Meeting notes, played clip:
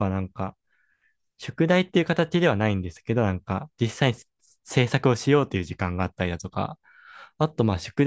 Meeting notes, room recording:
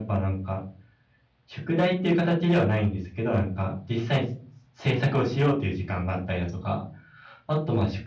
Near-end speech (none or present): none